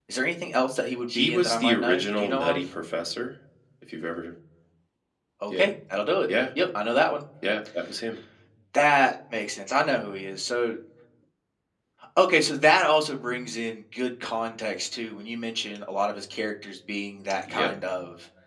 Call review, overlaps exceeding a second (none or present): present